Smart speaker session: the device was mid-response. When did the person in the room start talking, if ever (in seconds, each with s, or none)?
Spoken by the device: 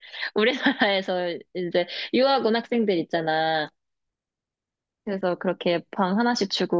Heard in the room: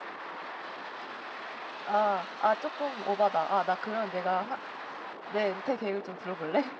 1.9 s